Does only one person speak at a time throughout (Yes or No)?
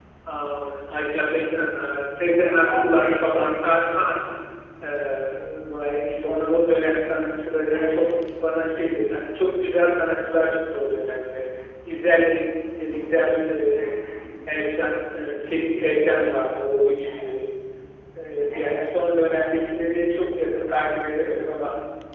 No